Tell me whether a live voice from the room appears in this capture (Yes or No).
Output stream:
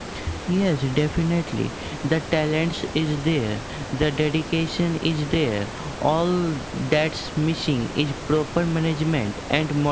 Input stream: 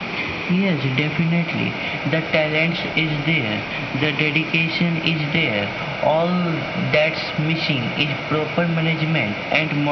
No